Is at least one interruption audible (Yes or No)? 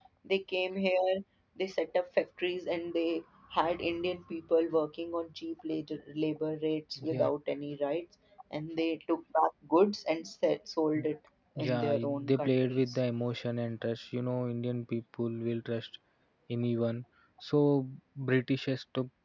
Yes